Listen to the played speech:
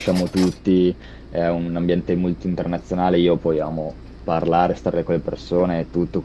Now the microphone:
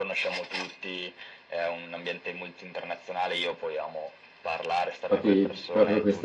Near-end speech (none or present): present